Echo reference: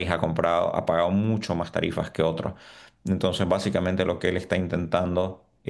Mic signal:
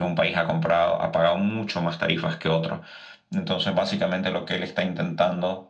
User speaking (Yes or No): No